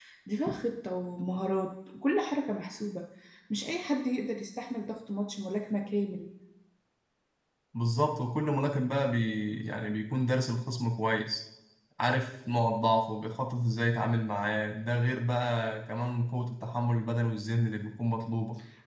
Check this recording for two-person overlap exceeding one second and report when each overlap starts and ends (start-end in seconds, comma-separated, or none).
none